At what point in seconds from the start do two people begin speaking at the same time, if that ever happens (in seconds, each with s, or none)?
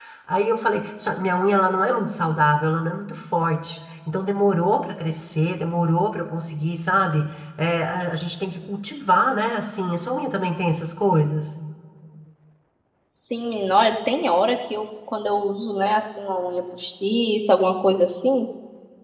none